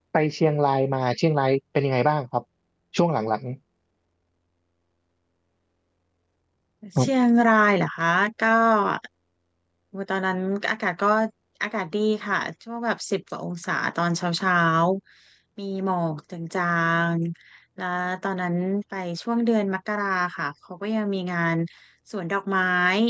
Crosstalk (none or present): none